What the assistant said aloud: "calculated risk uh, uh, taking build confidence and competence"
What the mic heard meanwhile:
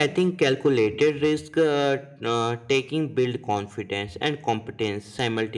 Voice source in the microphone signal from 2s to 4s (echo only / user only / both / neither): echo only